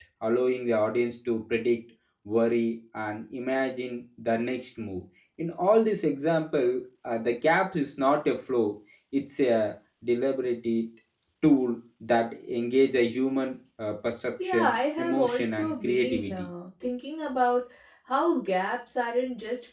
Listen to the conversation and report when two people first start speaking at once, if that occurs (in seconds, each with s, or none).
14.4 s